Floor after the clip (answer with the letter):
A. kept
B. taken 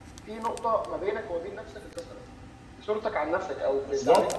B